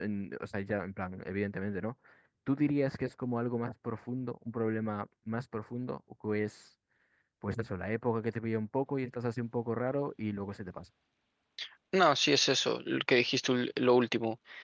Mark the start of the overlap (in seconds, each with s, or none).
none